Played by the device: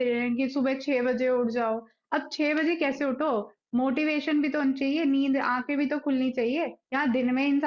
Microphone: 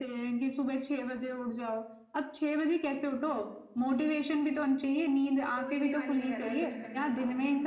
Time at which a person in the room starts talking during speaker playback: 5.5 s

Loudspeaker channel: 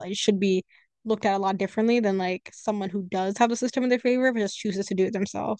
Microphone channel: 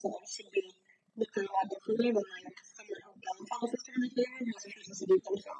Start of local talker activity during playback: none

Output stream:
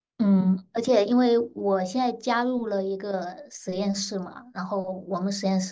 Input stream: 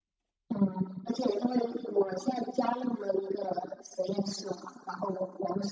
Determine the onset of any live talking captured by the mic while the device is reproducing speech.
none

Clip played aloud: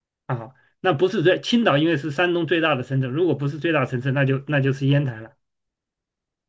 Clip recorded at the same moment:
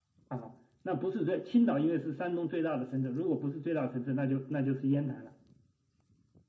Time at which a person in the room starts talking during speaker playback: none

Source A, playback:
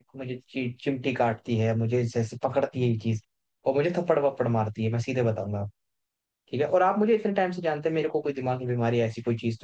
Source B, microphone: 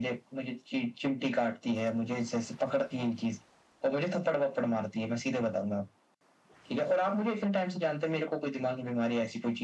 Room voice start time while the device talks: none

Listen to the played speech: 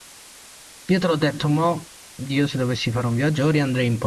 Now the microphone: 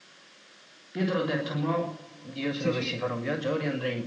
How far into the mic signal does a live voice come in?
2.6 s

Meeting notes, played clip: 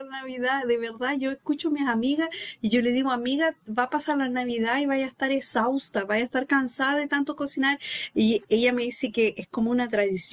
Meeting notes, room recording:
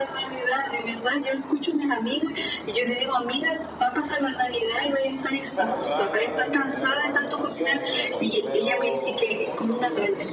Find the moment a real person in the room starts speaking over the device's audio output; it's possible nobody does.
5.5 s

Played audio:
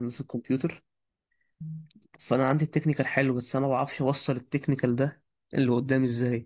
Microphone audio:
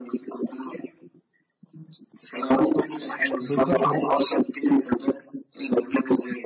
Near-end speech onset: 3.4 s

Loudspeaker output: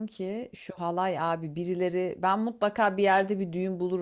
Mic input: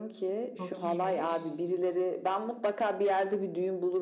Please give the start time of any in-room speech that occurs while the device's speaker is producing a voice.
0.6 s

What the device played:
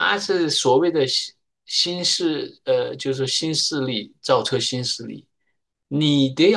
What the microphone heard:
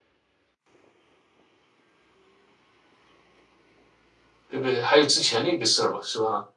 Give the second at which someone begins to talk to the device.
4.5 s

